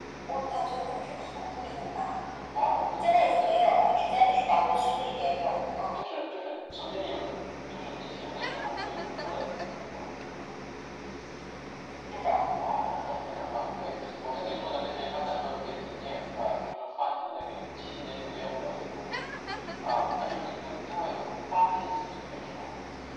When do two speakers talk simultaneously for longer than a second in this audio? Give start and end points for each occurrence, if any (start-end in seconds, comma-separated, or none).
none